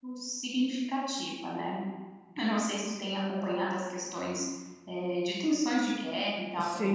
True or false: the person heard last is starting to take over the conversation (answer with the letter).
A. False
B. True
B